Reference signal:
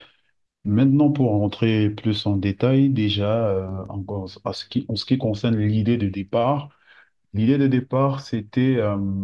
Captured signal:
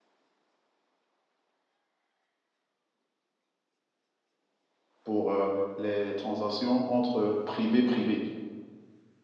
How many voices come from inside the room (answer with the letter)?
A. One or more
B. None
A